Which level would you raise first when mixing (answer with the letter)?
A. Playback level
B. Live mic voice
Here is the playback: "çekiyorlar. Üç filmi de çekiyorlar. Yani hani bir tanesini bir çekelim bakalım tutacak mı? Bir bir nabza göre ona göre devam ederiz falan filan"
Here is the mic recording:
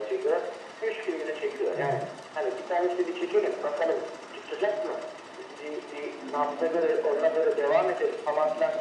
B